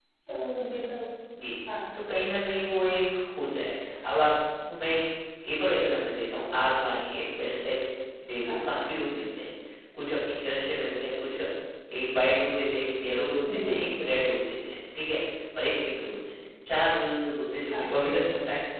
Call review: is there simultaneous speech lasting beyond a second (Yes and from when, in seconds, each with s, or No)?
No